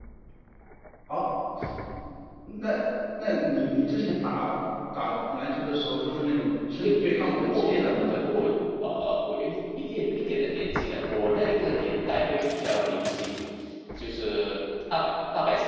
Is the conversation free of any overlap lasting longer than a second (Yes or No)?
No